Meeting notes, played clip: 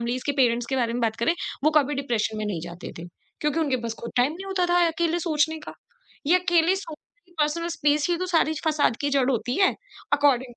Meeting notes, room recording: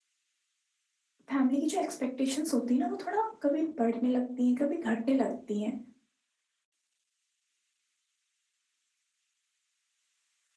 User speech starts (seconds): 1.3 s

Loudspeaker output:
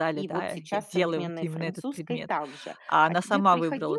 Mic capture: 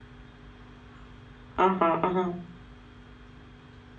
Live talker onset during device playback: 1.6 s

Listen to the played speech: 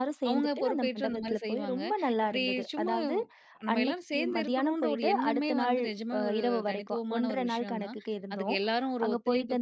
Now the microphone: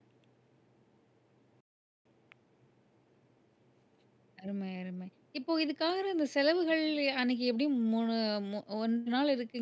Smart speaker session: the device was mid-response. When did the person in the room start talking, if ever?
4.4 s

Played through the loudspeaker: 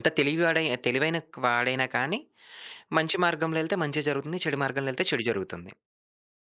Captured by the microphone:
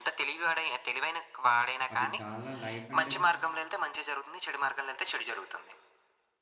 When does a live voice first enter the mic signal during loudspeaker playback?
1.9 s

